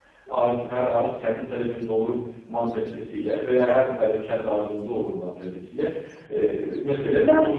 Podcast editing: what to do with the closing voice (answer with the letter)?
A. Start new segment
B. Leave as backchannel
A